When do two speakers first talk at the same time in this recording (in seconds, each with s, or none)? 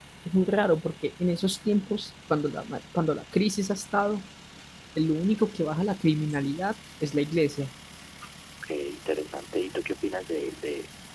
none